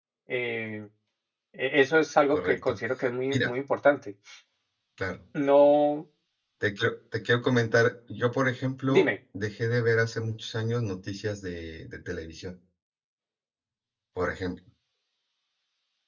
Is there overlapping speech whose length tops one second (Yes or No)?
No